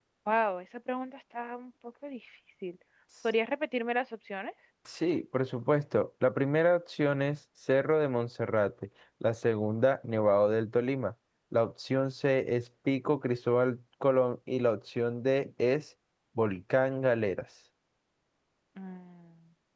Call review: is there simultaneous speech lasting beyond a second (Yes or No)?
No